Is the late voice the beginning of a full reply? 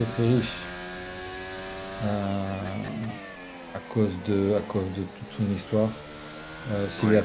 No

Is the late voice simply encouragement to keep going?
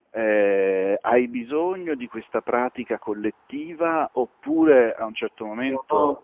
Yes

